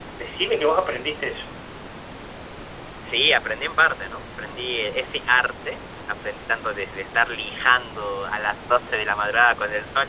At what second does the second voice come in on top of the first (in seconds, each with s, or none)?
none